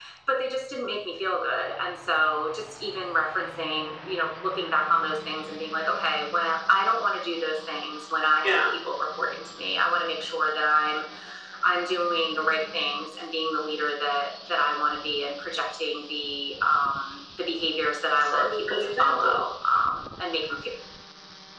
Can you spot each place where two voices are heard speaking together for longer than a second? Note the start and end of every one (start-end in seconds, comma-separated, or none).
18.2-19.4